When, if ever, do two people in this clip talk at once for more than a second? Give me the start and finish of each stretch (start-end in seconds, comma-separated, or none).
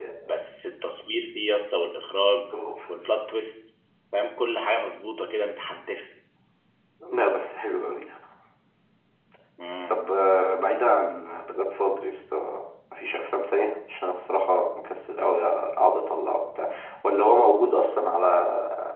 none